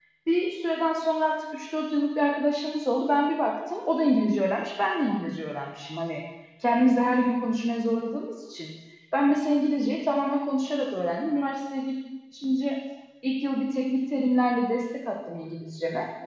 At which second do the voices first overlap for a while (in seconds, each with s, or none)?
none